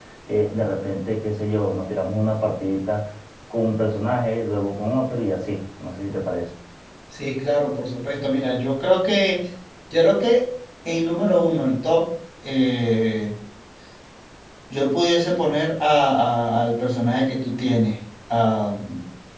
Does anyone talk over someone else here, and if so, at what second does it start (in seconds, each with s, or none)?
none